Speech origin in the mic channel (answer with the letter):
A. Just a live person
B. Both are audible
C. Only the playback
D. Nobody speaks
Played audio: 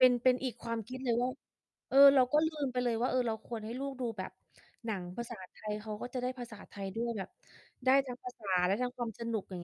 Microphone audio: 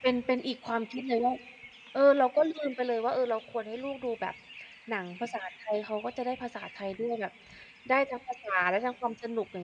C